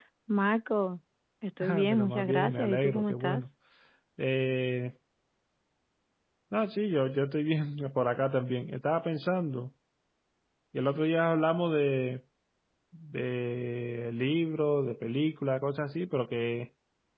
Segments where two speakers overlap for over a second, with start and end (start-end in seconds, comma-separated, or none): 1.9-3.4